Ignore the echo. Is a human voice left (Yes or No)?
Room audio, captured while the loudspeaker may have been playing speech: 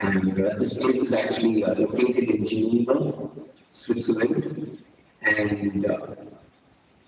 No